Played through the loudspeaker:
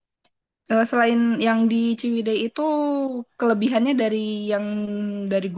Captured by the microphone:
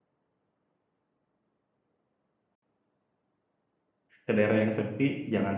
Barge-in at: 4.2 s

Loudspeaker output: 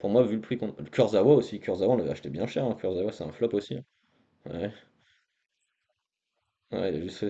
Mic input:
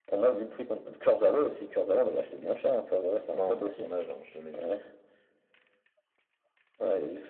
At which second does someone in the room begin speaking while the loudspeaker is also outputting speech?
3.3 s

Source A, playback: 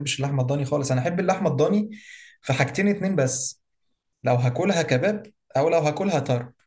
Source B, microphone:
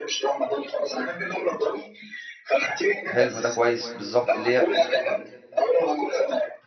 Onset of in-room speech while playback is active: 3.1 s

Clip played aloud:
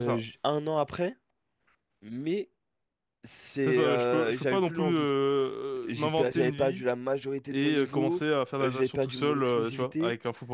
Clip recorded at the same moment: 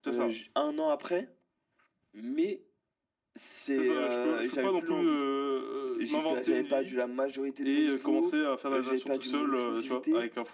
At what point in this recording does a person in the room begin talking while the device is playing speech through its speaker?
none

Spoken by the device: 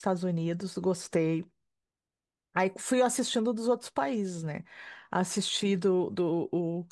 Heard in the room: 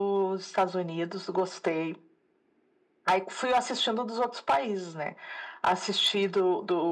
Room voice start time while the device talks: none

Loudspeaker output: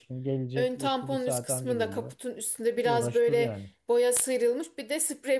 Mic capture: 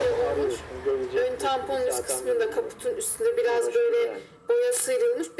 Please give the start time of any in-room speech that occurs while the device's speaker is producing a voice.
none

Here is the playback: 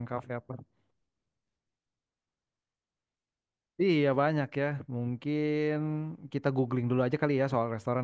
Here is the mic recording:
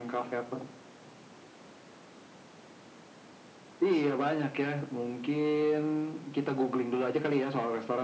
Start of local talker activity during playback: none

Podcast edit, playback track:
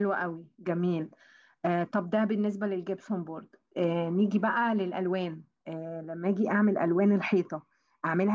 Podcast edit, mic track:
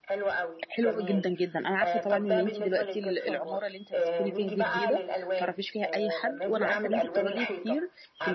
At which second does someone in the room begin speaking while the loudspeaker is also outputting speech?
0.7 s

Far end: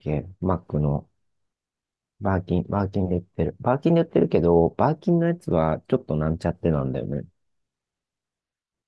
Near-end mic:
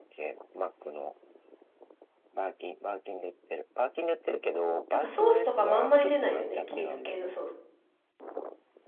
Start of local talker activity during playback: 4.9 s

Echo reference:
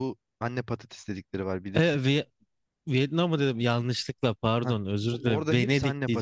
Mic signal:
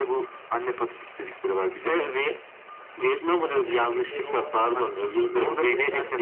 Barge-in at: 3.4 s

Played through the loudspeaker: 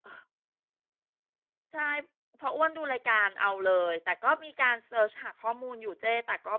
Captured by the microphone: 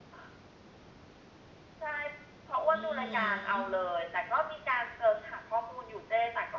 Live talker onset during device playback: 2.7 s

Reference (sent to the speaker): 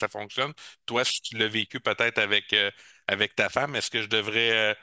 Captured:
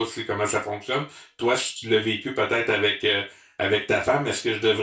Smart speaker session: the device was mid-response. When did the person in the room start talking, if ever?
none

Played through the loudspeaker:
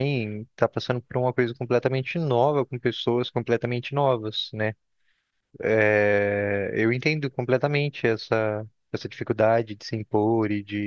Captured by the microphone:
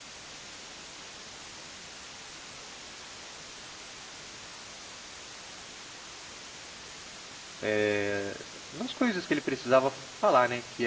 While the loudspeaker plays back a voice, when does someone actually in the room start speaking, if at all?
7.6 s

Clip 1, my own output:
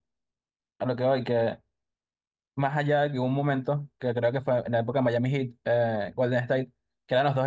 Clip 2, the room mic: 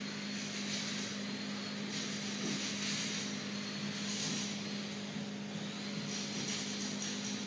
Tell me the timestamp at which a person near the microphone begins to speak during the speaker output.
none

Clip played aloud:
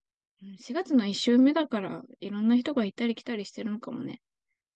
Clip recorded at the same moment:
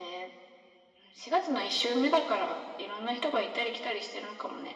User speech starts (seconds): none

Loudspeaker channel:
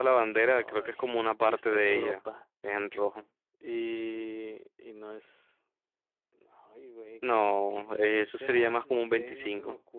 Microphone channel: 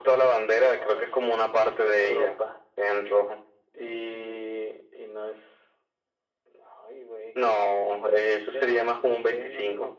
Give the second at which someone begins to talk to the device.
none

